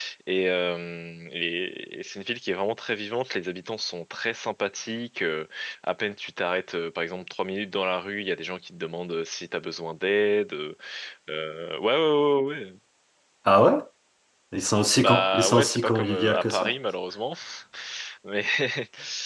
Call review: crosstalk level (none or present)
present